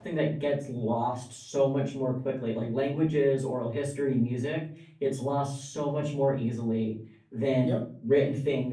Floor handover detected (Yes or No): No